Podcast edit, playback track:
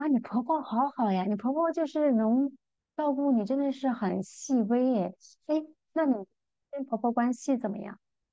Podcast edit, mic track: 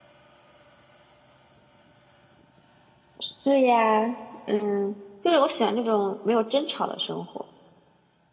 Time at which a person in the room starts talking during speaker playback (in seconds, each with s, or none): 3.2 s